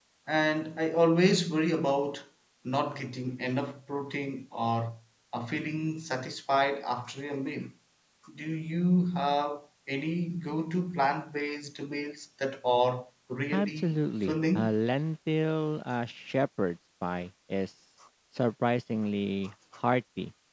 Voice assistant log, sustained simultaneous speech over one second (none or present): present